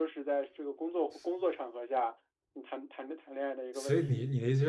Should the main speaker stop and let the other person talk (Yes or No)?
Yes